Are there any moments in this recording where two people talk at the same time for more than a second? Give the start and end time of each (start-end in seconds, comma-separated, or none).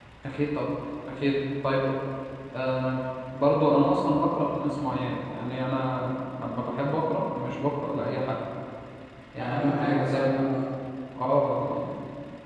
9.4-10.6